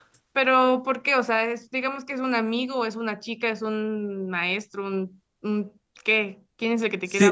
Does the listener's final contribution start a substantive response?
Yes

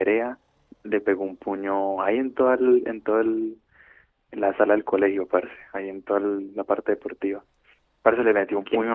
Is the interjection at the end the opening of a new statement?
No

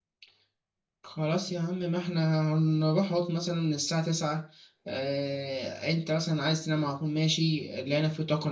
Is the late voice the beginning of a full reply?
No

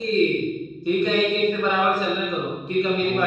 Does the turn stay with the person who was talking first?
No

